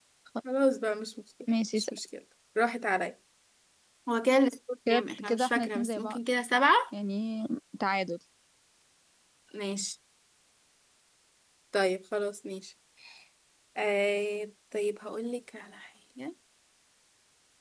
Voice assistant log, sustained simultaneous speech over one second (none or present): present